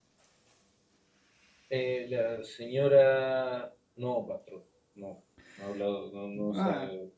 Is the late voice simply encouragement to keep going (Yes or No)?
No